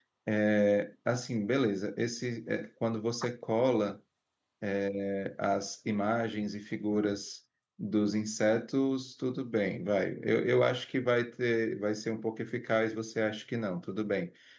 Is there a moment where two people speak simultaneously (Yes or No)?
No